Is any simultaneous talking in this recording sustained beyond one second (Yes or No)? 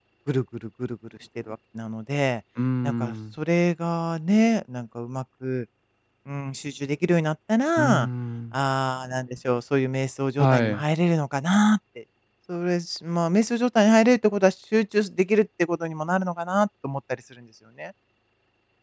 No